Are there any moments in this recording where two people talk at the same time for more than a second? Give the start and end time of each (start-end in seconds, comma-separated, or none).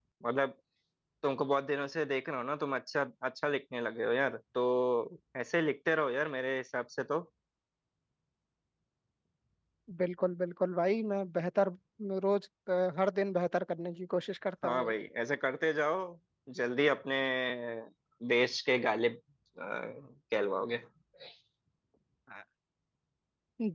none